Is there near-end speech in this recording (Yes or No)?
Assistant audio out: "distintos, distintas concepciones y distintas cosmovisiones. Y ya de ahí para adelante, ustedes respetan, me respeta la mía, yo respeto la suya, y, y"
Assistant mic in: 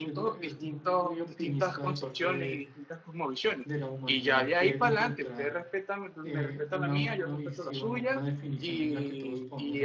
Yes